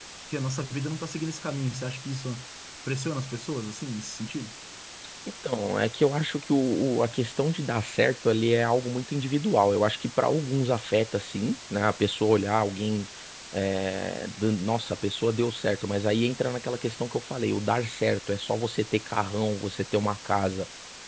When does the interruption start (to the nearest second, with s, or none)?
none